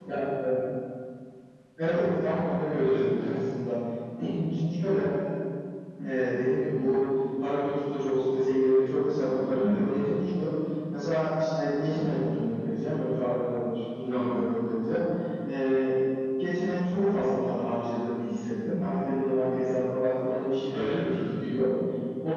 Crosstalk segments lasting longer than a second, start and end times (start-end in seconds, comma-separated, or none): none